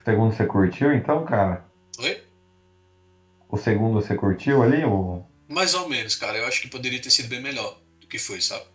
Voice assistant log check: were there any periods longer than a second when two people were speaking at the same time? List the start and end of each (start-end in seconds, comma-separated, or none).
none